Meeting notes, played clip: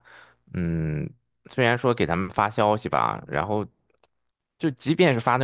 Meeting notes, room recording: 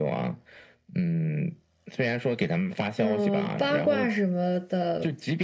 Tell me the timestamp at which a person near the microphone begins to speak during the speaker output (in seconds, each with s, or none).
3.0 s